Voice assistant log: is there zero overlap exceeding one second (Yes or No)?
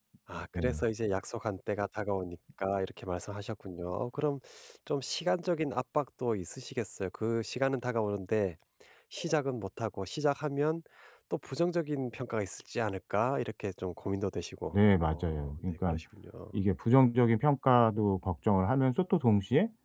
No